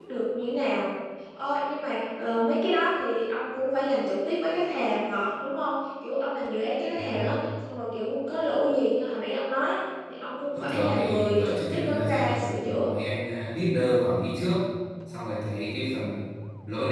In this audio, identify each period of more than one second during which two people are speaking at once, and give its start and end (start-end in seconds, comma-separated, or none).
10.5-12.9